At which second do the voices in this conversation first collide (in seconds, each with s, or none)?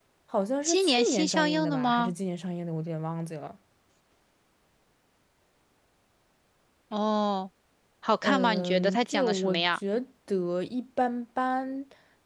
0.6 s